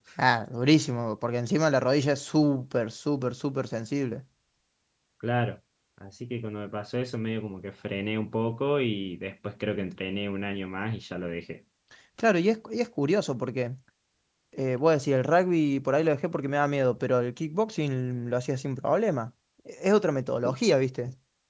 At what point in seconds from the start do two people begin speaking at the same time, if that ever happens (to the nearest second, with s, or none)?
none